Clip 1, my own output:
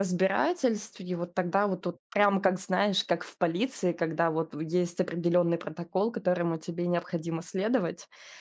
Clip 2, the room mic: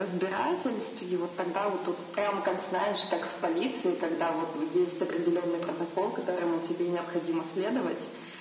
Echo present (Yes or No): Yes